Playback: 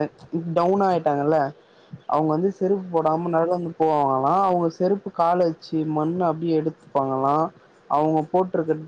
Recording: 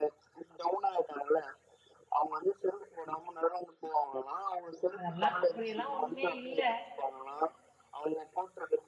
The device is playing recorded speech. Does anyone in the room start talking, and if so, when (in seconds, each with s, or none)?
5.0 s